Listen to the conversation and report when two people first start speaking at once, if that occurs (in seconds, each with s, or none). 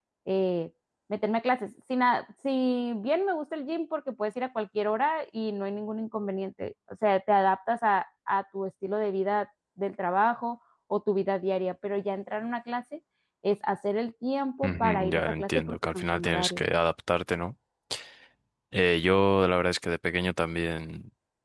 14.6 s